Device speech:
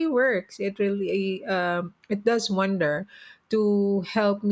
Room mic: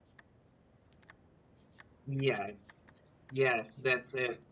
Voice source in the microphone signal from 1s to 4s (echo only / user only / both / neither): user only